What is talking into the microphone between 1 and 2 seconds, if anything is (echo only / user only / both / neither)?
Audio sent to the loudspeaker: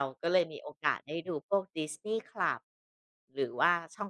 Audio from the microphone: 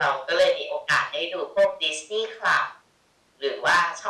echo only